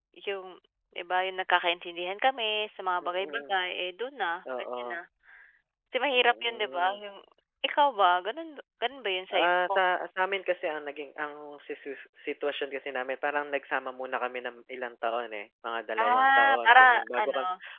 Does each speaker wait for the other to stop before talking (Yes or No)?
No